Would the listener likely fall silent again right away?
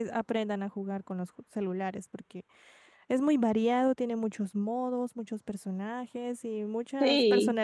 No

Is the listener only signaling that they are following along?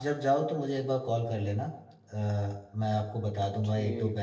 Yes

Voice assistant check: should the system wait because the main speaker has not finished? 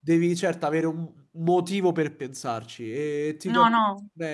Yes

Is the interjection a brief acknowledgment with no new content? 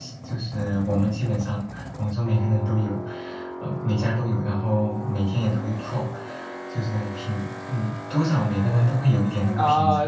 No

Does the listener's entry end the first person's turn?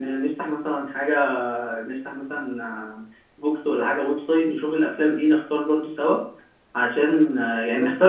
No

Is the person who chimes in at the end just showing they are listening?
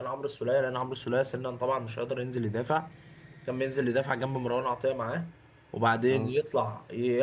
Yes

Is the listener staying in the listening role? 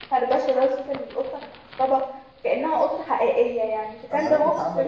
No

